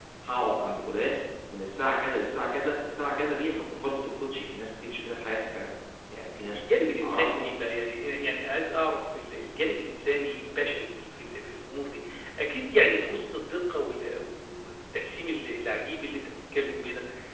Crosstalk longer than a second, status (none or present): none